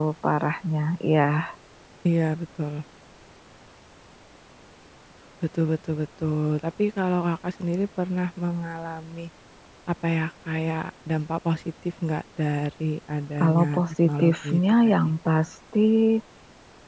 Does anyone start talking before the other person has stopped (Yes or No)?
Yes